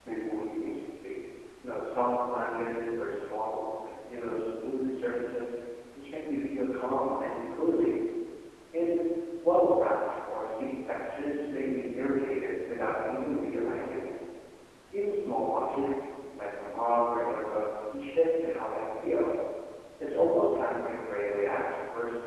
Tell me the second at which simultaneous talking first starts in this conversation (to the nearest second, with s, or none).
none